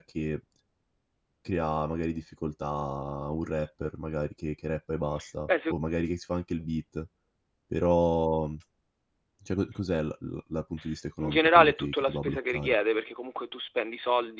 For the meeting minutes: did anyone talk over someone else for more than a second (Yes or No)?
Yes